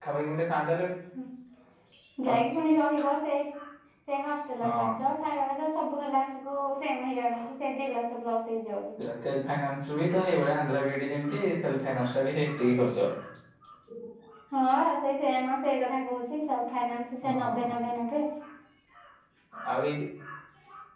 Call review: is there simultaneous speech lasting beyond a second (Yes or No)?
No